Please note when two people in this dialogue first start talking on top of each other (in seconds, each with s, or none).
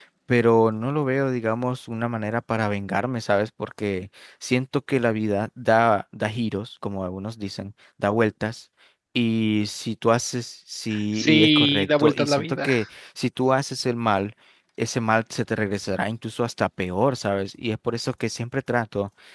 11.2 s